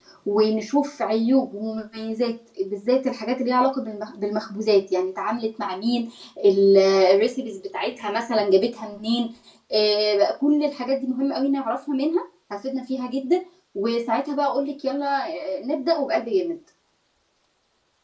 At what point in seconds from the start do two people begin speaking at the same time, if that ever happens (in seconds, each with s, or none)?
none